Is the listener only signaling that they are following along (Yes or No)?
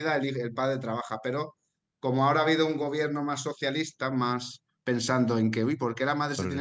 Yes